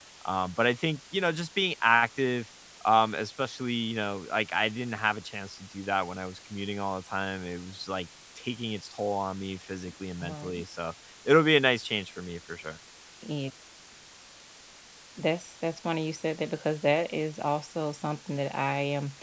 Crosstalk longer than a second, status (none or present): none